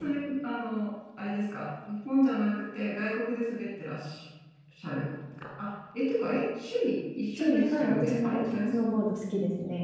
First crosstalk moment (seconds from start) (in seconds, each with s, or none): 7.4 s